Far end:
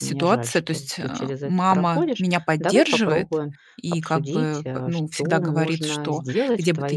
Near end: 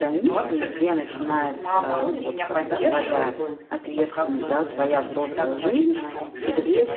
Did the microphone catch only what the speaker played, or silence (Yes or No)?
No